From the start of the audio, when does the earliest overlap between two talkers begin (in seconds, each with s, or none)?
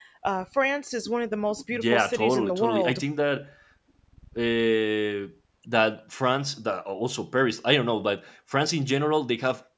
1.7 s